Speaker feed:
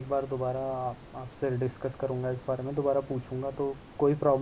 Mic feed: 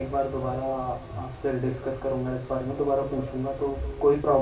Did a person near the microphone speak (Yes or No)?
No